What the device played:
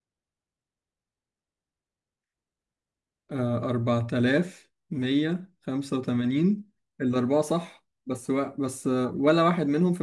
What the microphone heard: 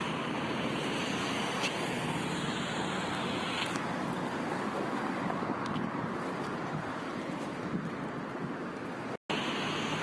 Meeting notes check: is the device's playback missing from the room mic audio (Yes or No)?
Yes